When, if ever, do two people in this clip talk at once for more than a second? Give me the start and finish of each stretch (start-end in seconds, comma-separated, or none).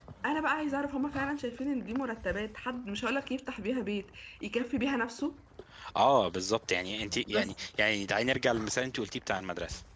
none